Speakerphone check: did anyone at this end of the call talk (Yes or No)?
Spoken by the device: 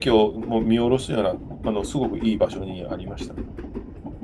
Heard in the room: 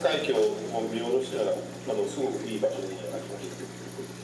No